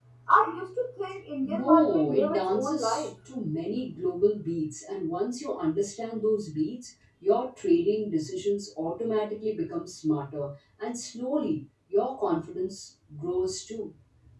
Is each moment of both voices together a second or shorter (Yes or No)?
No